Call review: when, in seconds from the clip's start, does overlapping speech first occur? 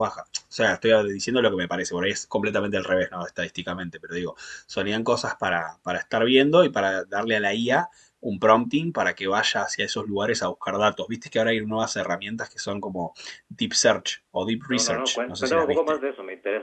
15 s

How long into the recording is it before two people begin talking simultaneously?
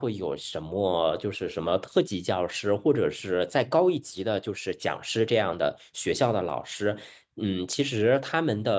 none

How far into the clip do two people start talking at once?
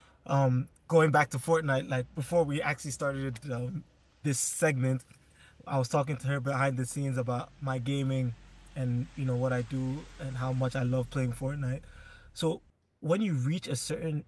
none

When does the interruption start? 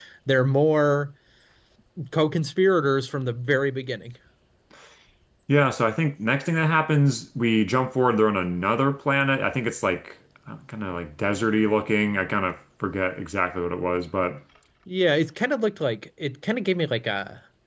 none

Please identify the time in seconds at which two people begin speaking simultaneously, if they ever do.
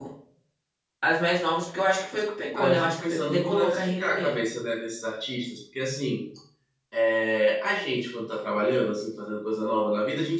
3 s

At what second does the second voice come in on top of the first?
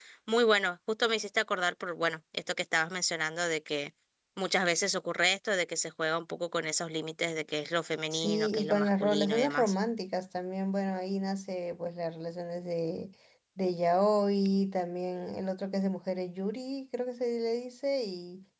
8 s

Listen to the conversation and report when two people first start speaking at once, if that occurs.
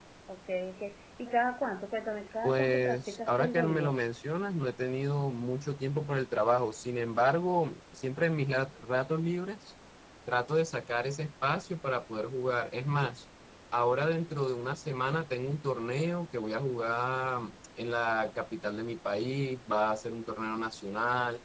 2 s

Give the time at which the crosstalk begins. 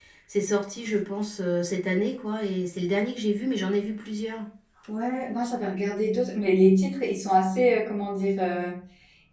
none

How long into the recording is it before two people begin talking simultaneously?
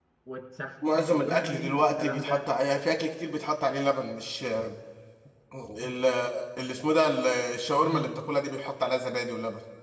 1 s

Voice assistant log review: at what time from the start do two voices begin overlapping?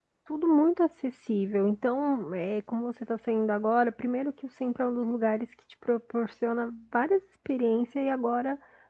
none

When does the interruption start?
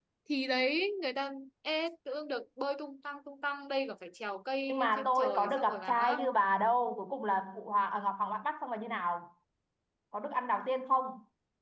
5 s

